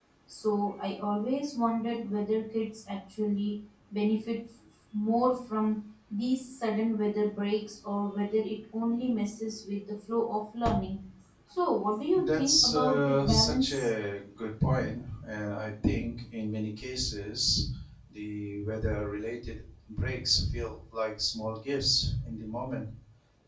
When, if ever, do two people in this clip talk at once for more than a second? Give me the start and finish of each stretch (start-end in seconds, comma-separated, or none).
12.2-13.9